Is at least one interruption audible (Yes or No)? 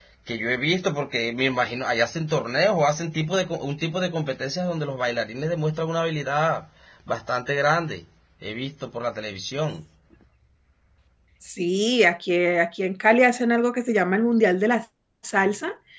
No